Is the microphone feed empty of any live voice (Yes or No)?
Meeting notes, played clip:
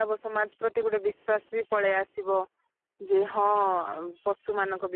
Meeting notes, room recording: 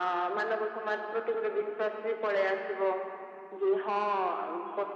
Yes